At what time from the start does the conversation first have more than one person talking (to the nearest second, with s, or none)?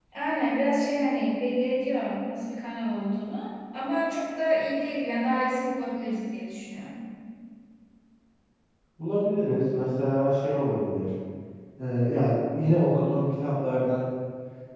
none